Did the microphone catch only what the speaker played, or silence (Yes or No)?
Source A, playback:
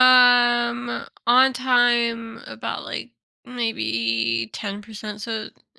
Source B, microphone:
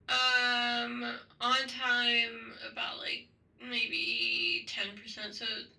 Yes